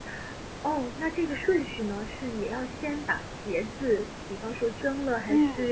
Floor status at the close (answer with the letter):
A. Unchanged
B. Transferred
B